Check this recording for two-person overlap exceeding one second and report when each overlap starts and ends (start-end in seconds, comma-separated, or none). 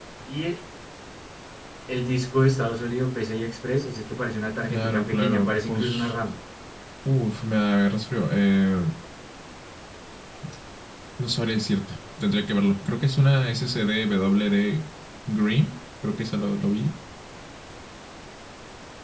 4.7-6.1